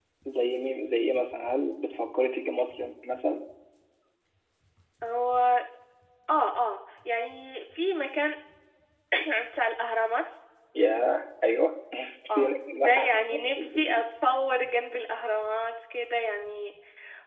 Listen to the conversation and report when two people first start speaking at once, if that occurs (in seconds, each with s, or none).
12.3 s